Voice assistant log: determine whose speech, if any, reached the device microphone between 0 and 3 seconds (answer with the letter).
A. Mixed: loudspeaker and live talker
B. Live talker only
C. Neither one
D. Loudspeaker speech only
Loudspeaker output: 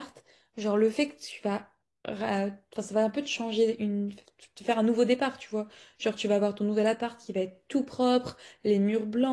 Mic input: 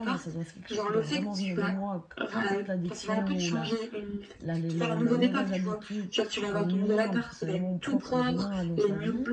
A